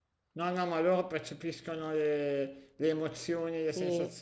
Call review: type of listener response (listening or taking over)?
listening